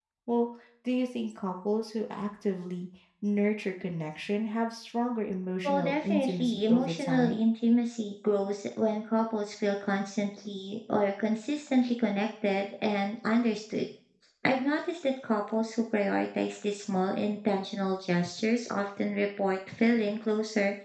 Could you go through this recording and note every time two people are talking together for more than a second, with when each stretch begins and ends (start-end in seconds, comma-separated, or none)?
5.6-7.4